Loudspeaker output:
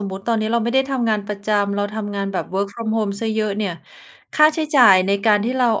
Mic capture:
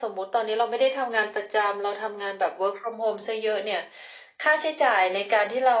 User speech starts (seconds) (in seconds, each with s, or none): none